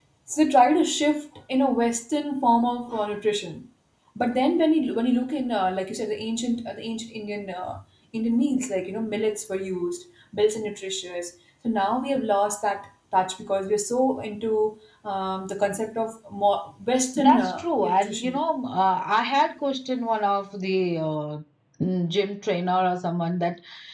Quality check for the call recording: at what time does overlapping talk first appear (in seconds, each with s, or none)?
17.1 s